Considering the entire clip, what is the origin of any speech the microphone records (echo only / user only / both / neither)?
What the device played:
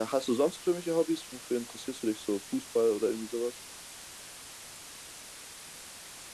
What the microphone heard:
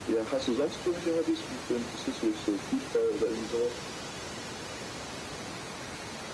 echo only